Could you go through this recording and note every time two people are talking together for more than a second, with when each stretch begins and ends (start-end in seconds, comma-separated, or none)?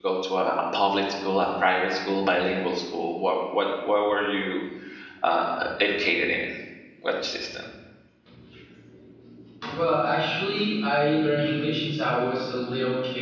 none